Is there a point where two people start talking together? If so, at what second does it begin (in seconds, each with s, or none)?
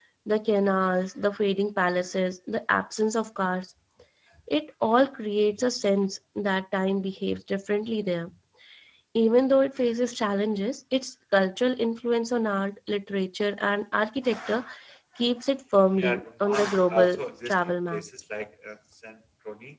16.0 s